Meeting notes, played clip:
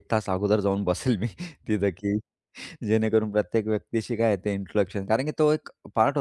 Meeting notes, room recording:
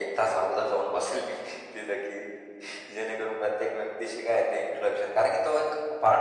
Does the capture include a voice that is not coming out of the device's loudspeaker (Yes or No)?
No